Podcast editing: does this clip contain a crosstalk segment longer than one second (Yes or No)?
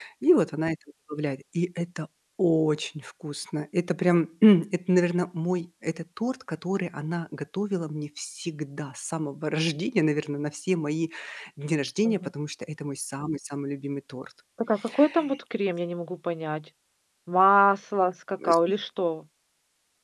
No